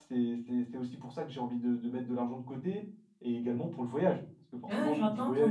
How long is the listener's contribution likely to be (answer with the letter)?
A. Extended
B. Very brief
A